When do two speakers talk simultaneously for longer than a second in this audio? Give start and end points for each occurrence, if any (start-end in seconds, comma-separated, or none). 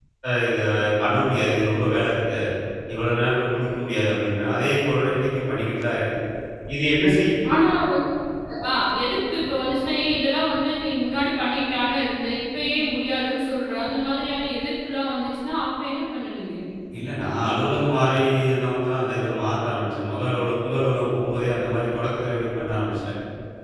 none